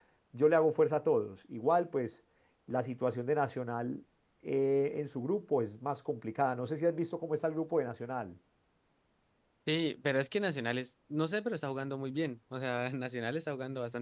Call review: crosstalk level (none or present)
none